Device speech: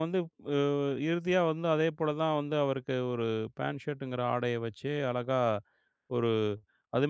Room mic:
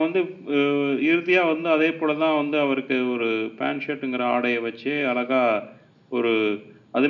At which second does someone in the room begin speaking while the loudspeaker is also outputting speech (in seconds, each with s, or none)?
none